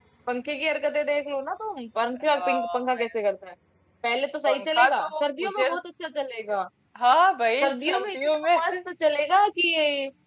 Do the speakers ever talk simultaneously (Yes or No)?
Yes